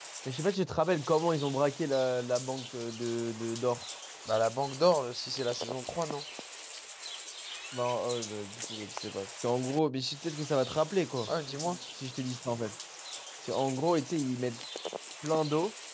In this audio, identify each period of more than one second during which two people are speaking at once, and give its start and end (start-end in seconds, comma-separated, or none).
none